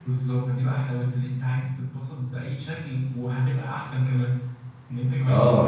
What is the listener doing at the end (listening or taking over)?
taking over